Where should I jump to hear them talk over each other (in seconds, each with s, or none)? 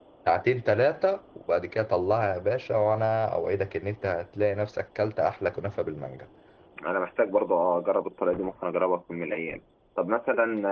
none